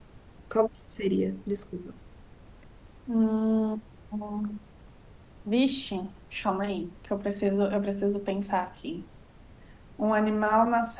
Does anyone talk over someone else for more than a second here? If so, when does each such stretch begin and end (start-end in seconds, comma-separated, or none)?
none